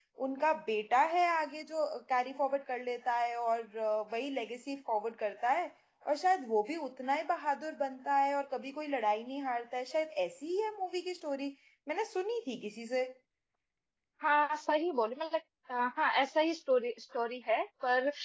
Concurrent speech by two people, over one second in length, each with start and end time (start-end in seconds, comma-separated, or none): none